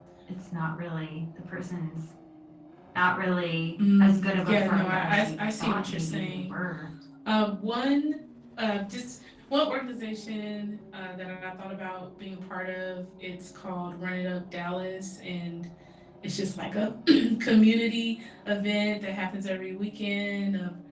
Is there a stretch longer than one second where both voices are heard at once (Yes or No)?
Yes